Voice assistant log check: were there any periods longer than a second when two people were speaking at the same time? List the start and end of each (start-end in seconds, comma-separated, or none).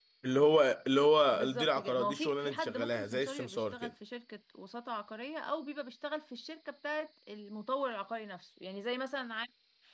1.3-3.9